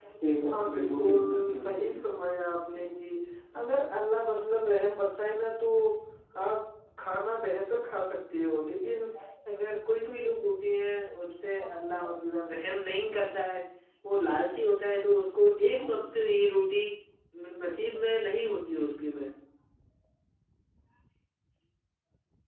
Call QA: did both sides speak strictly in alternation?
No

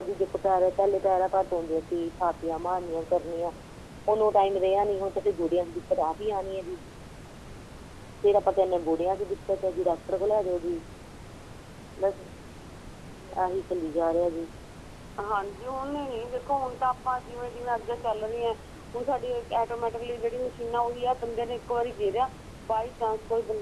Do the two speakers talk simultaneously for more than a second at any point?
No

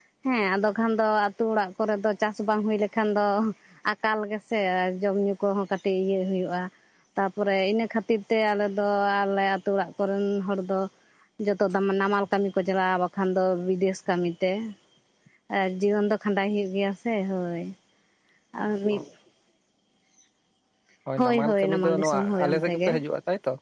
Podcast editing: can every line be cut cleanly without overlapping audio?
No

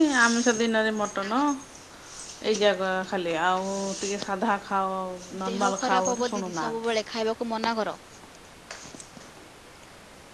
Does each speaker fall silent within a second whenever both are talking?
No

